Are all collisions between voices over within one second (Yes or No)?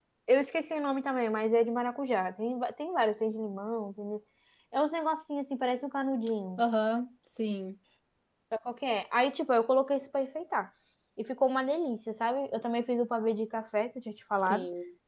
Yes